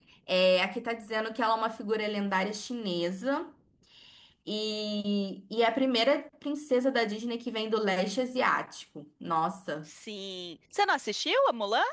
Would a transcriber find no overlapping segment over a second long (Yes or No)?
Yes